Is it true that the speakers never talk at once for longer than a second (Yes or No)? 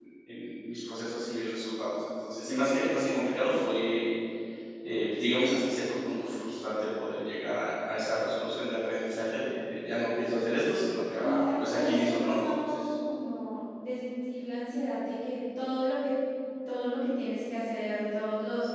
No